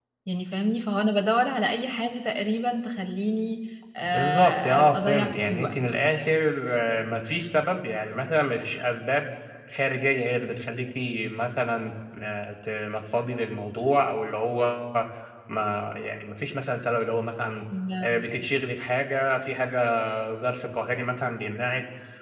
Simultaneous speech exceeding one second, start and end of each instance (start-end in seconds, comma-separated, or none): 4.0-5.7